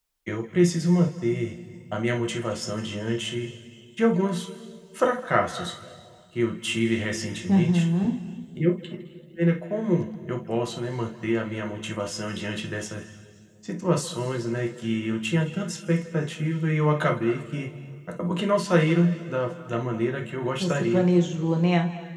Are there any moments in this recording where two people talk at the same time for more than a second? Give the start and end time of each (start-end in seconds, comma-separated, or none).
none